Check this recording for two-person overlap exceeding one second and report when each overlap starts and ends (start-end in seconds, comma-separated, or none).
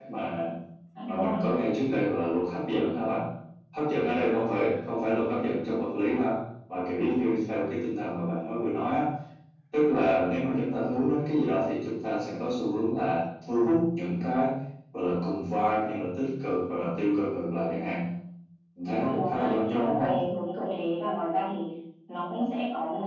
18.9-20.1